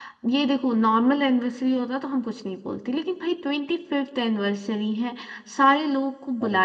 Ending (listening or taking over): listening